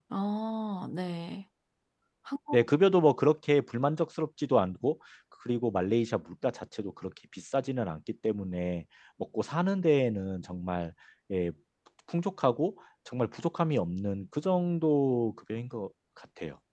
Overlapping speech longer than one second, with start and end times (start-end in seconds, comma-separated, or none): none